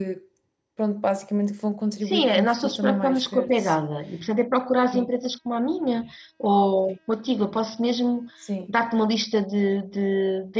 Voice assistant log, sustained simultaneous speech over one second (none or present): present